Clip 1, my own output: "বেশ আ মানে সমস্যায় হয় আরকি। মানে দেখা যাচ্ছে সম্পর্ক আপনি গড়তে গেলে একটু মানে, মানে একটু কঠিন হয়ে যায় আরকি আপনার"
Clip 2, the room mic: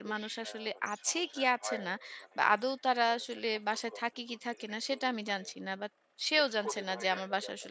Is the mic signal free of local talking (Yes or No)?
No